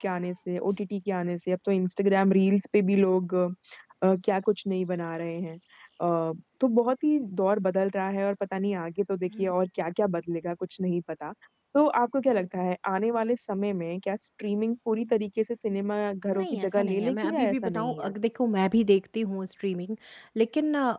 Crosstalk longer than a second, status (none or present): present